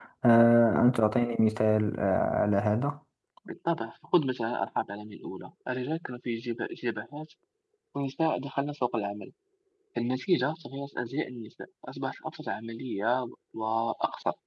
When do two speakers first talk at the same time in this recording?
none

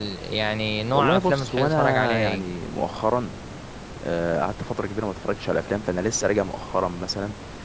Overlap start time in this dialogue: 1 s

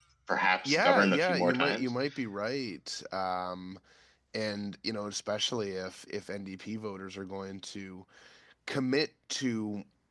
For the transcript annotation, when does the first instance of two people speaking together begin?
1 s

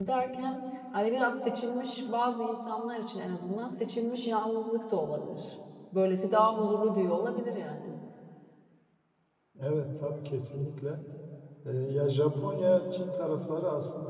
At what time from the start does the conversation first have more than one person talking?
none

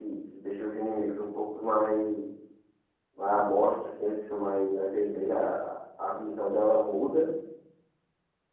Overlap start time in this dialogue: none

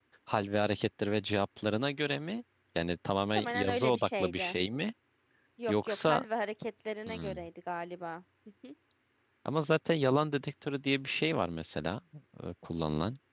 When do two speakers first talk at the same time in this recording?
3 s

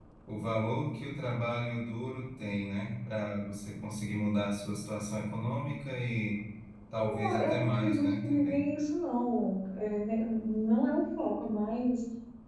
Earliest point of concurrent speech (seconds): 7 s

